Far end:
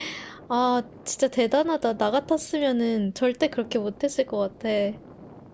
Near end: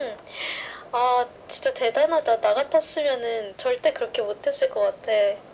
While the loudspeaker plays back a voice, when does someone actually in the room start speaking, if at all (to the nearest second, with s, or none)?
none